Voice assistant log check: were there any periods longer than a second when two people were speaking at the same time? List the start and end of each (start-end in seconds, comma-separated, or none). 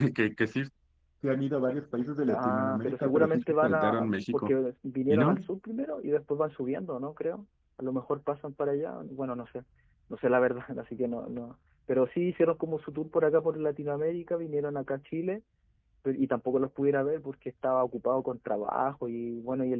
2.3-4.5